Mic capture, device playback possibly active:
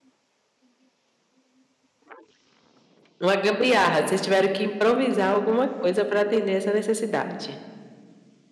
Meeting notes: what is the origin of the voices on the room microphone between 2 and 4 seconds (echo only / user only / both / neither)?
user only